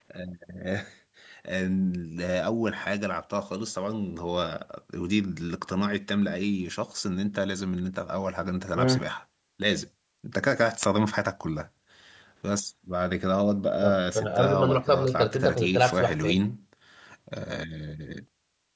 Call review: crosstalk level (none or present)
present